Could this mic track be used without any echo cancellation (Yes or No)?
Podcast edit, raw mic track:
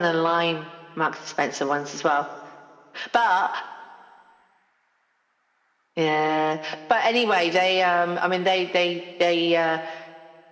No